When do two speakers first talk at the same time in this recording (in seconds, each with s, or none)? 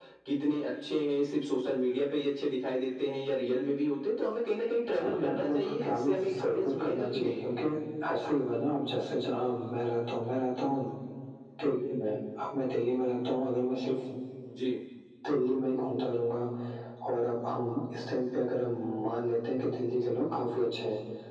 4.9 s